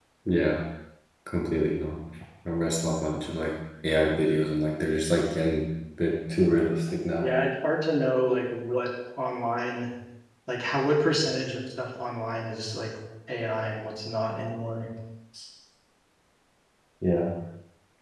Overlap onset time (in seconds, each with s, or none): none